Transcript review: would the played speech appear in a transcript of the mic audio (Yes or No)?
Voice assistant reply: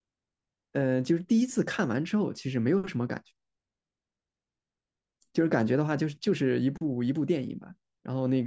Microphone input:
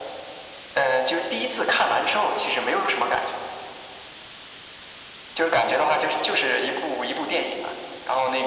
Yes